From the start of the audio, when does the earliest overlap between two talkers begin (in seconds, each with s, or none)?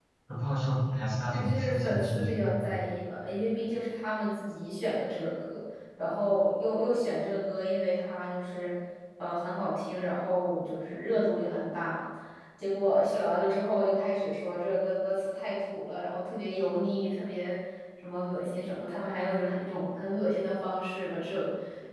1.3 s